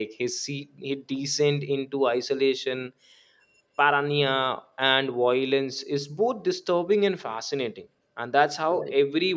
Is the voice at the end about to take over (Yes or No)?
Yes